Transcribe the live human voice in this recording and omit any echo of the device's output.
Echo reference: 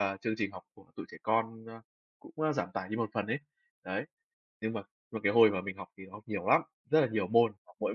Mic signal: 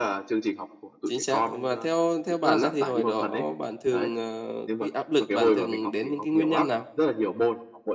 Chính xác. Và theo theo bạn á, thì hồi đó bạn thường, ờ cái áp lực bạn thường đến những cái nguyên nhân nào?

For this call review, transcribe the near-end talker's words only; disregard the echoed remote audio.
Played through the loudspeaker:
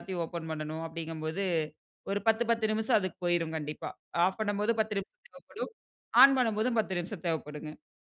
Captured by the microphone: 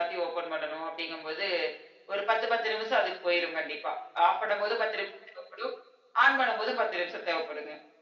none

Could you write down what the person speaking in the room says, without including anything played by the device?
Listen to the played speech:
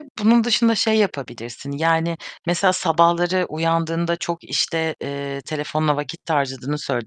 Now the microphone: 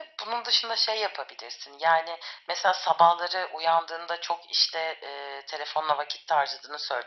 none

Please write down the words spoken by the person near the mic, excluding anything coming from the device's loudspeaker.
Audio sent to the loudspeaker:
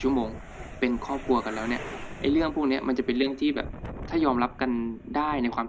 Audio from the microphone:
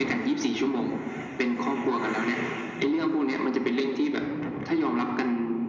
none

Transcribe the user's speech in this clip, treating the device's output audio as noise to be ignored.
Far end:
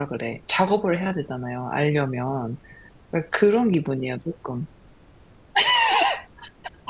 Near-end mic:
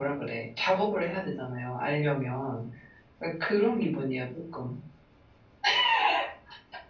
none

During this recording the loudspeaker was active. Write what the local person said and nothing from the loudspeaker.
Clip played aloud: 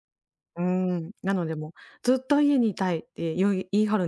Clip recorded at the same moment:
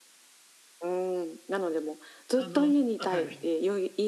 あの、はい。

